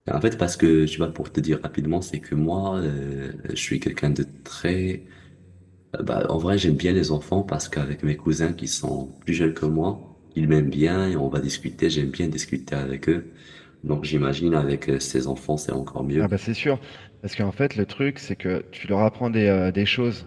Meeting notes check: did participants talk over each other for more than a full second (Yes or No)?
No